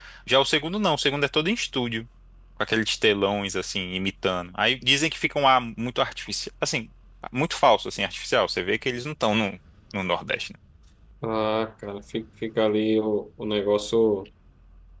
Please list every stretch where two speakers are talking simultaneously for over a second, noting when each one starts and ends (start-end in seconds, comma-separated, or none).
none